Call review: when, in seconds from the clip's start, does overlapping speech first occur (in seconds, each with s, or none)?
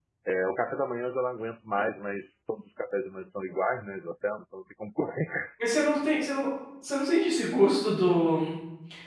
none